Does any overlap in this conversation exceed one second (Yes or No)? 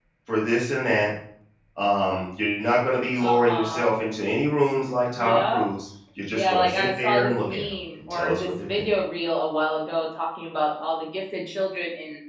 Yes